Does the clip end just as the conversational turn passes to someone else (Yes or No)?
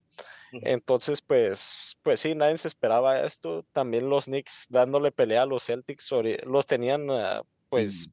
No